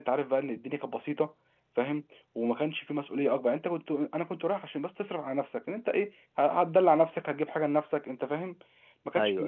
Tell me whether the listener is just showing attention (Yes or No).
Yes